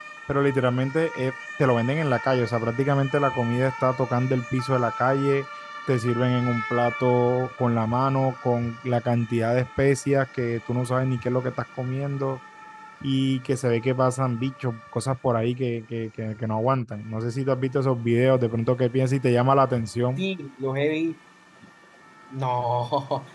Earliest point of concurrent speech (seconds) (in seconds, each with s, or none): none